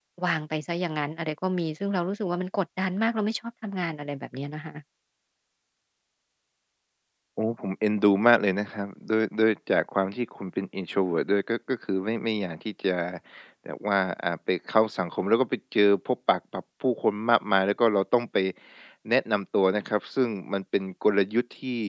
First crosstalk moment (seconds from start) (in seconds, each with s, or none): none